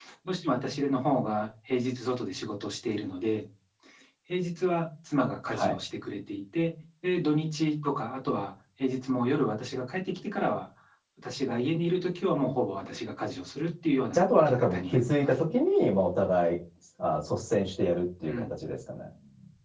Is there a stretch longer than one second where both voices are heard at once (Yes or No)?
Yes